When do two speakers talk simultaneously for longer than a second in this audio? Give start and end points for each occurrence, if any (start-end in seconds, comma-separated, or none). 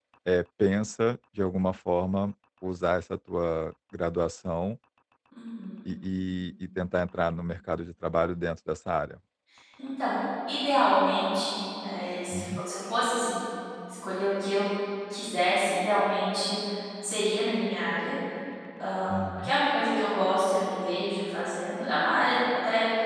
none